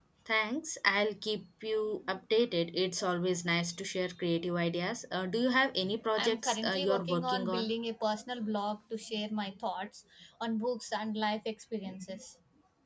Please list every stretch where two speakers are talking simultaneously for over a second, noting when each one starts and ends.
6.1-7.7

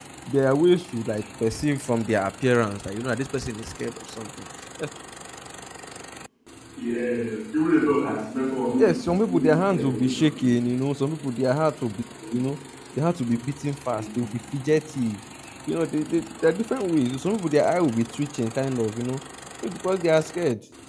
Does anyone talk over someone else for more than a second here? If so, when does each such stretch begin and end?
8.7-10.6

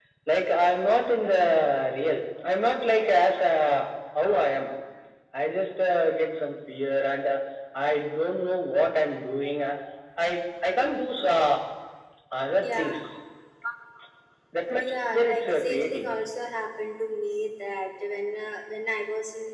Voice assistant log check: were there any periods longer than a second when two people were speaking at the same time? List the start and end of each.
14.8-16.1

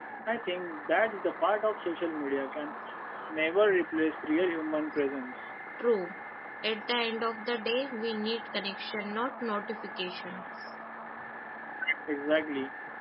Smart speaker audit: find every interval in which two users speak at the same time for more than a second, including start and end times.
none

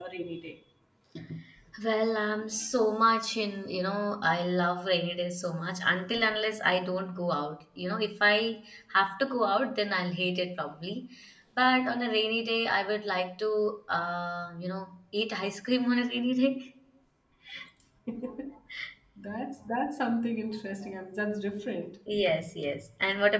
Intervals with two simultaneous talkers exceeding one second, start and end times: none

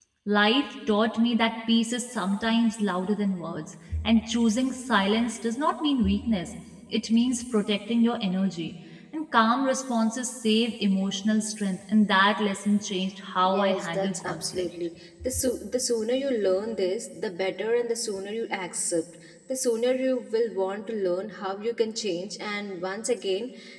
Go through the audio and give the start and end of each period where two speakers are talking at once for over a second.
13.4-14.7

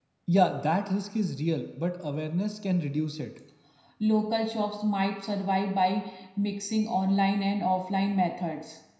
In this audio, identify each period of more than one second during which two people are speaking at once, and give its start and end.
none

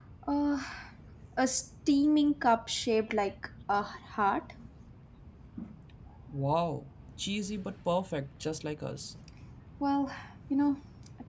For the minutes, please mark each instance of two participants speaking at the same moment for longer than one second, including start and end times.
none

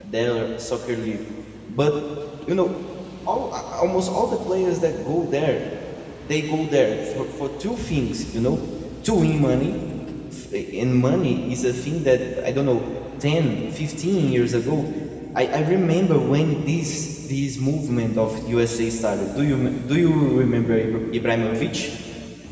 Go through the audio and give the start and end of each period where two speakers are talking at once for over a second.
none

